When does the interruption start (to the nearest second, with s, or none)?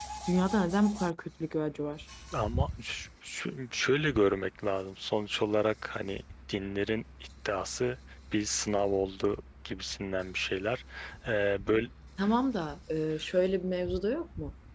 none